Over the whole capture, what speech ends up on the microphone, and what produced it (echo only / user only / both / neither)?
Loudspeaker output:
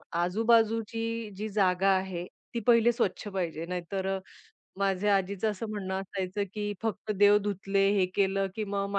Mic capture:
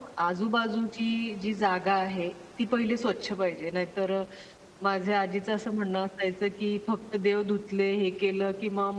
echo only